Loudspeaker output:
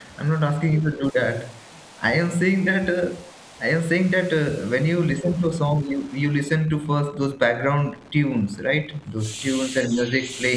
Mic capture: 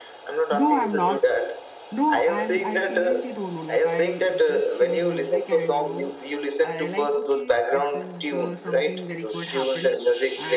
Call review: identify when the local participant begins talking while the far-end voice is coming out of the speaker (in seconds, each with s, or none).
0.5 s